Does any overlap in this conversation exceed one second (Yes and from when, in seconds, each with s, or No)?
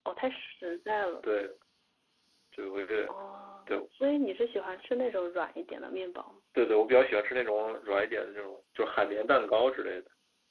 No